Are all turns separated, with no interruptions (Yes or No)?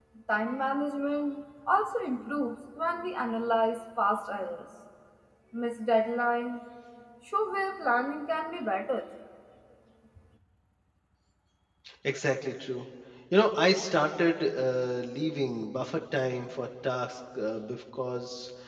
Yes